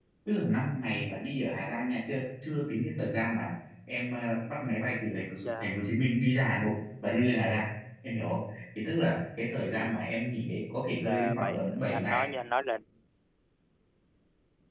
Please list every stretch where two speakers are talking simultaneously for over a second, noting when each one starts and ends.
10.9-12.2

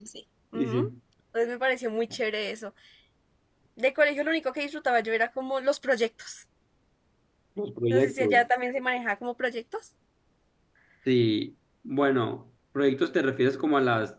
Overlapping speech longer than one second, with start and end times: none

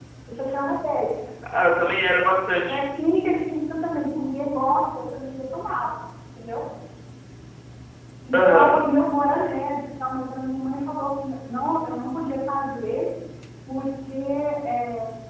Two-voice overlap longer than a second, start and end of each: none

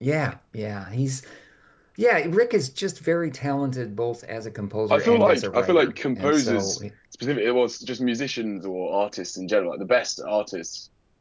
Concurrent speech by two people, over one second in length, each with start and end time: 4.9-6.8

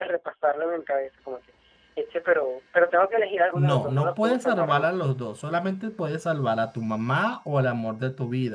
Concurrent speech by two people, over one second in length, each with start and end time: 3.6-5.0

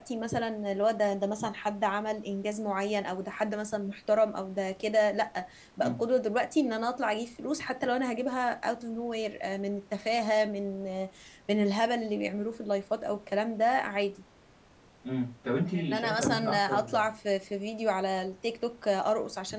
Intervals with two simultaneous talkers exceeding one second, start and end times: 15.6-17.0

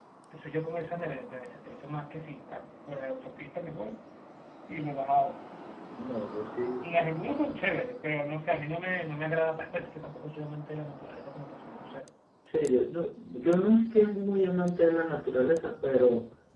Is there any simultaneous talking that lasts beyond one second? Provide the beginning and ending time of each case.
none

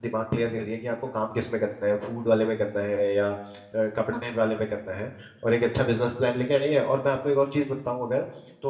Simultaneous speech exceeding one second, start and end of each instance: none

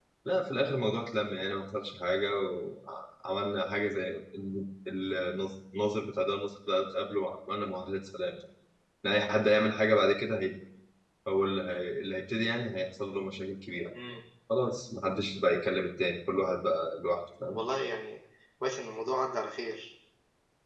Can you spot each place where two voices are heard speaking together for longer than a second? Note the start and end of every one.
none

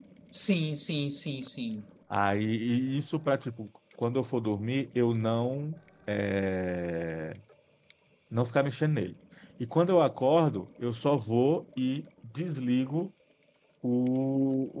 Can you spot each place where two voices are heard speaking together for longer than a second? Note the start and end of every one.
none

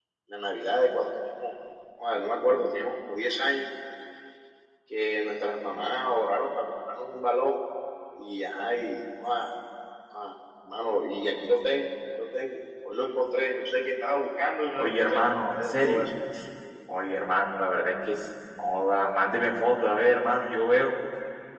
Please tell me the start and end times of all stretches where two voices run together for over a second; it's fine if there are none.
14.7-16.1

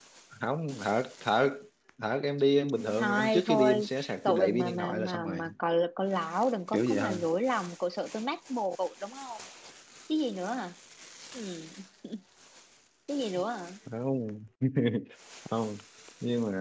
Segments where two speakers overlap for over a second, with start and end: 3.0-5.4

